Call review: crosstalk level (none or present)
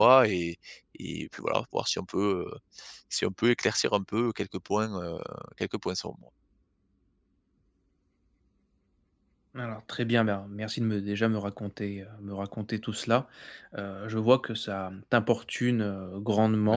none